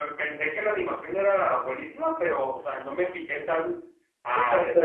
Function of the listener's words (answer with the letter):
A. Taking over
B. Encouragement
A